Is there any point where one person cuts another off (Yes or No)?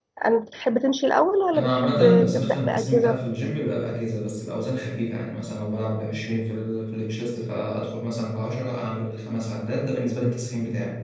Yes